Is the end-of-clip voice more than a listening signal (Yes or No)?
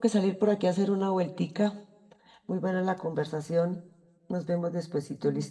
Yes